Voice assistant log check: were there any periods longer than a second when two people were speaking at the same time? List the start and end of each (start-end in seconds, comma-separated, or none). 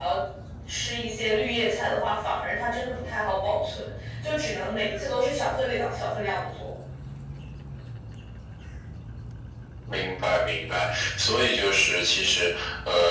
none